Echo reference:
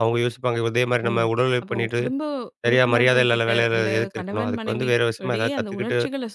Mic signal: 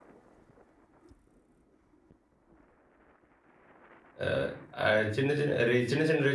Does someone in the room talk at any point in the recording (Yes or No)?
Yes